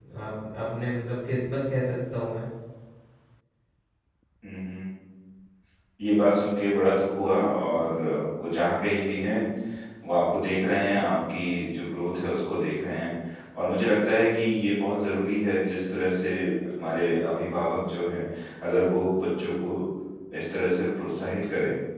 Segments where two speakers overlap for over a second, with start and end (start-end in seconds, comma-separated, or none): none